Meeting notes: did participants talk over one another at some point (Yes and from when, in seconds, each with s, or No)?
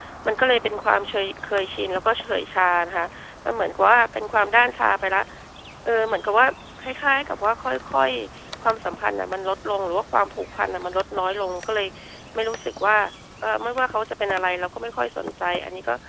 No